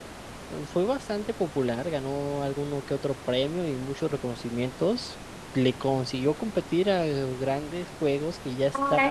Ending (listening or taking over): taking over